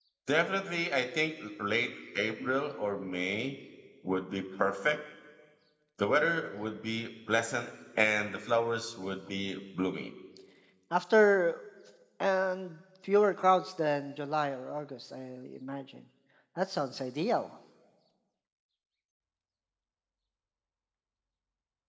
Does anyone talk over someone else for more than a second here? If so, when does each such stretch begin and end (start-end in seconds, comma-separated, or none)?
none